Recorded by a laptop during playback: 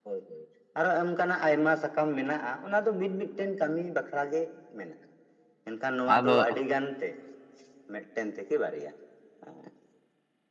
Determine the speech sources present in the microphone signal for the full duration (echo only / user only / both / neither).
both